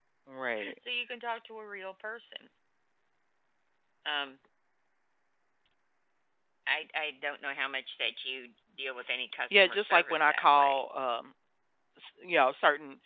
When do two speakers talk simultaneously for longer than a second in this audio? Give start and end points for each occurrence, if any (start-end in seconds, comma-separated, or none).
9.5-10.8